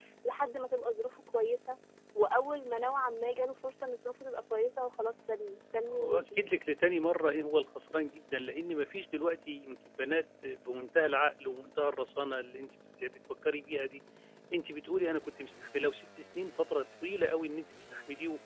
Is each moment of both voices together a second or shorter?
Yes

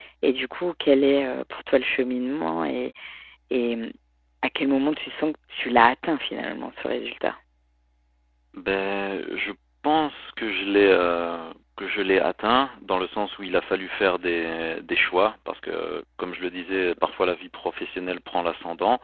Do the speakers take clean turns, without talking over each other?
Yes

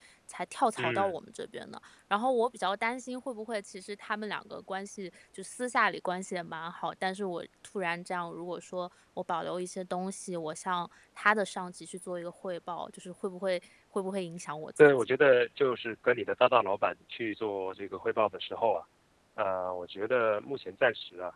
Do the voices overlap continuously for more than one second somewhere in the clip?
No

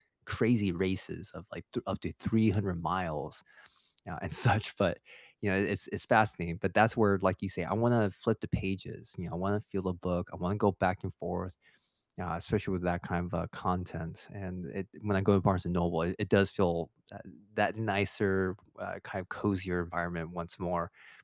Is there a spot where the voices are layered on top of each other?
No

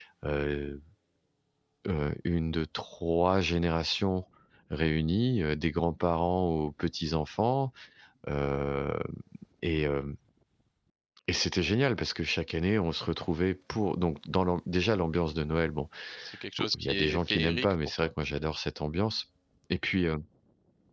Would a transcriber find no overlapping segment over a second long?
No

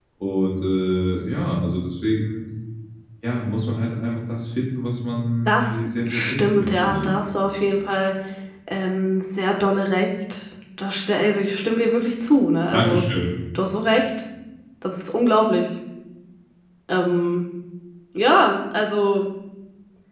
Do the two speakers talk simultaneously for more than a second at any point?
Yes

